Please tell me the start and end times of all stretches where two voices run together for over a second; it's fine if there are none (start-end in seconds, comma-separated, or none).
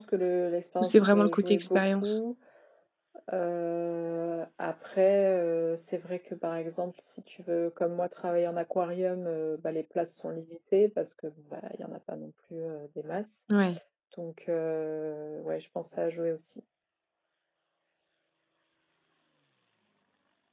0.8-2.2